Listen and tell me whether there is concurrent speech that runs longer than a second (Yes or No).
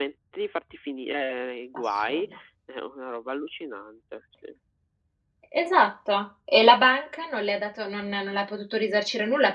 No